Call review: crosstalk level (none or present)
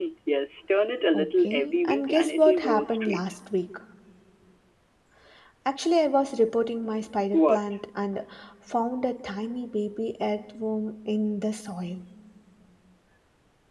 present